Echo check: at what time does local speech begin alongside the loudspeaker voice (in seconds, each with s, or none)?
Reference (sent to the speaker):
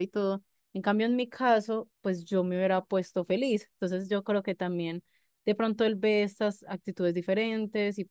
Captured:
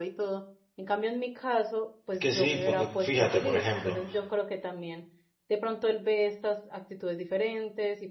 2.1 s